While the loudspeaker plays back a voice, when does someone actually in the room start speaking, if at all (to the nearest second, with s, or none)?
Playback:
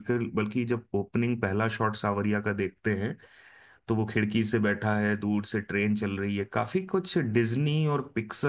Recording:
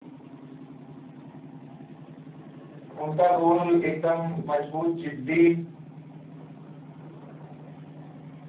3 s